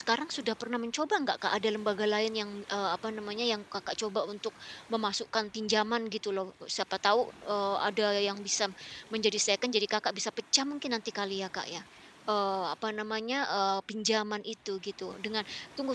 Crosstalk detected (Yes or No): No